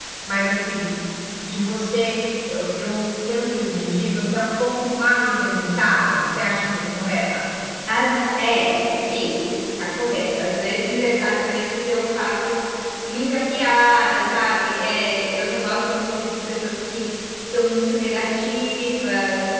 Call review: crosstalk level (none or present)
none